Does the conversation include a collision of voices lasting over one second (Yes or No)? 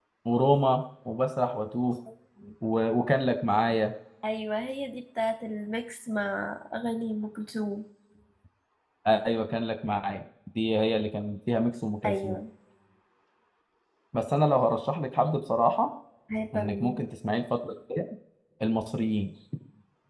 No